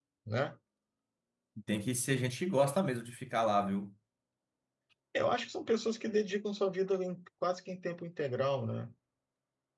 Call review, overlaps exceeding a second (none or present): none